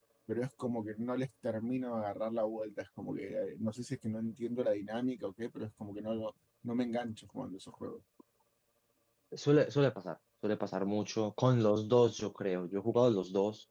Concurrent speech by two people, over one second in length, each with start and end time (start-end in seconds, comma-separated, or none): none